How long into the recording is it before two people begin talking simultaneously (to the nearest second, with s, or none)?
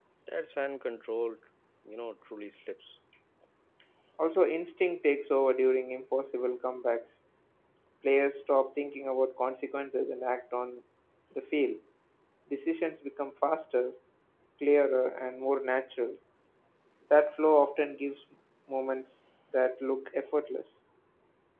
none